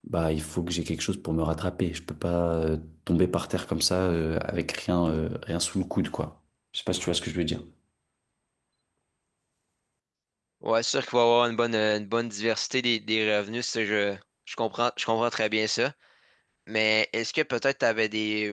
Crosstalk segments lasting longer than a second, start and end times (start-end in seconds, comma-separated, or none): none